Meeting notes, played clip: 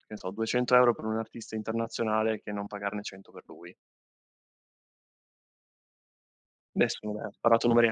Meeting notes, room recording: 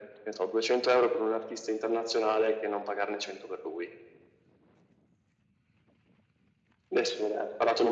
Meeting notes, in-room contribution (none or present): none